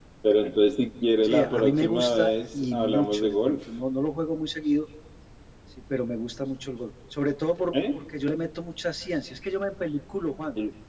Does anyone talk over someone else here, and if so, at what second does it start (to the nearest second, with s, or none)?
1 s